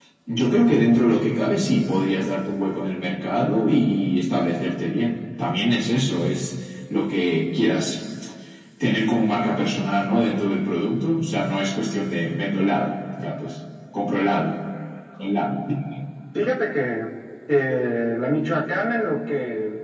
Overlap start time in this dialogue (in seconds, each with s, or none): none